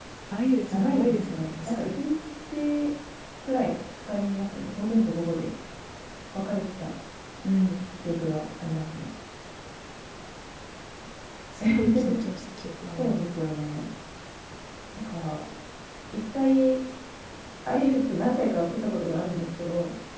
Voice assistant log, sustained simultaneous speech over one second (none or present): present